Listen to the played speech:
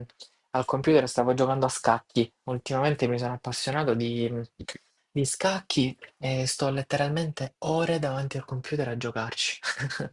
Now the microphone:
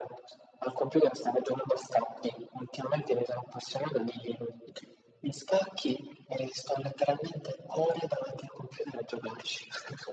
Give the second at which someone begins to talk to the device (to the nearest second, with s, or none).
none